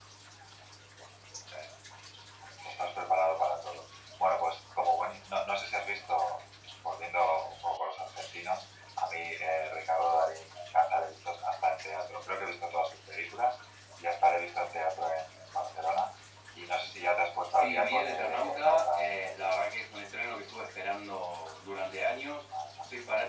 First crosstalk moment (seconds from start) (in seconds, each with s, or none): 17.5 s